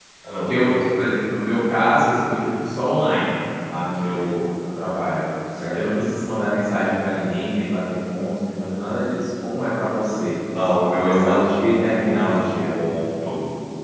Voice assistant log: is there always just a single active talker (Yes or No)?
No